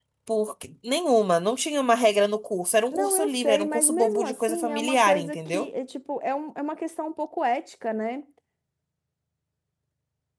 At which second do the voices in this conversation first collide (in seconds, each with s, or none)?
2.9 s